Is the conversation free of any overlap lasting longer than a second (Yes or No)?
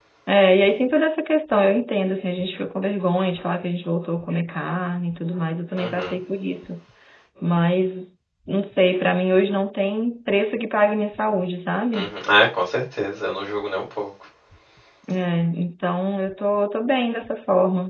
Yes